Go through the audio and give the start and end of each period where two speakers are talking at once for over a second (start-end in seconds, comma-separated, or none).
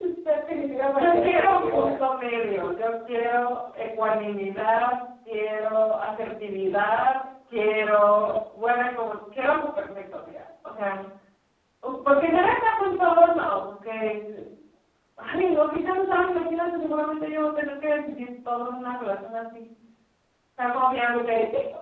0.9-2.1